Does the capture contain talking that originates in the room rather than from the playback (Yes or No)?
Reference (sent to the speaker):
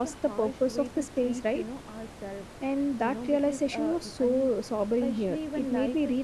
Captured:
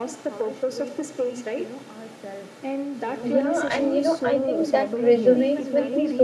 Yes